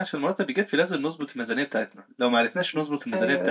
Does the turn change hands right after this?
No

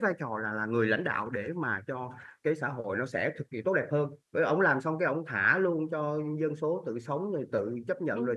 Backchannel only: Yes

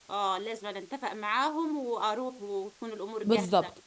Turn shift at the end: Yes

